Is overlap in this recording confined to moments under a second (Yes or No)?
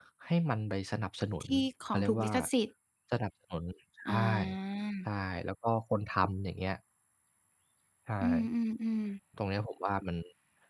Yes